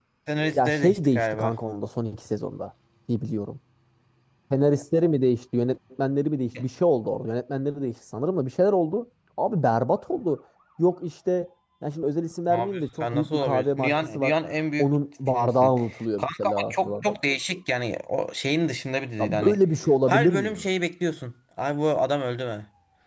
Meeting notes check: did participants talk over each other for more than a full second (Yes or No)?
Yes